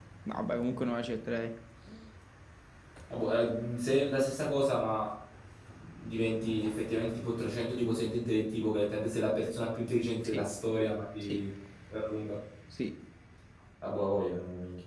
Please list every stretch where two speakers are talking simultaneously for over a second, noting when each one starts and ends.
none

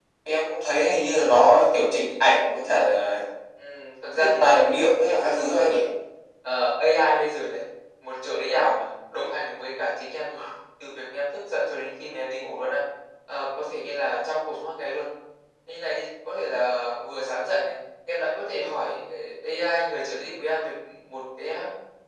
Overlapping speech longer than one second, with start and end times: 4.2-5.8

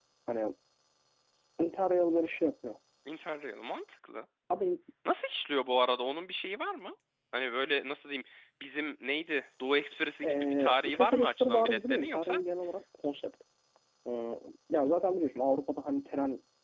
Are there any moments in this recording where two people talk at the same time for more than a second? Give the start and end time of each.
10.2-12.4

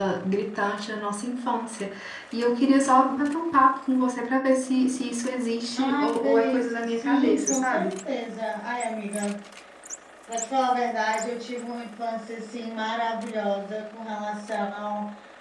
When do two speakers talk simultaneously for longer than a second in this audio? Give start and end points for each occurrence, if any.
5.7-7.9

